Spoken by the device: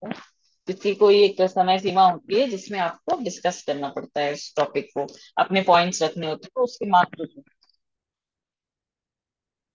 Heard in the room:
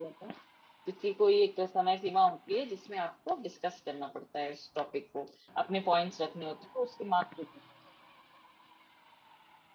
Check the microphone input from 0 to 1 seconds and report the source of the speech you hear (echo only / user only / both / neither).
echo only